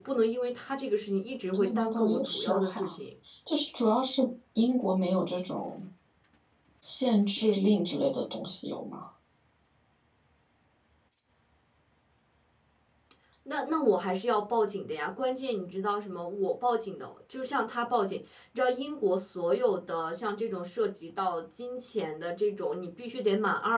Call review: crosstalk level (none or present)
present